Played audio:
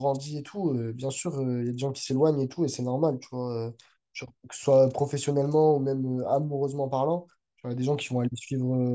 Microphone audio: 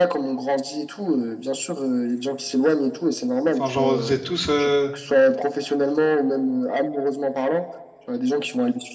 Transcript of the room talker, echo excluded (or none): Enfin, genre vous êtes tous euh,